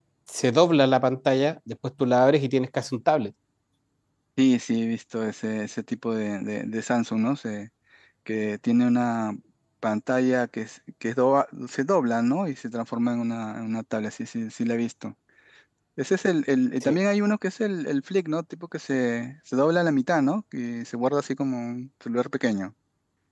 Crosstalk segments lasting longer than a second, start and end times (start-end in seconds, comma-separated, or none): none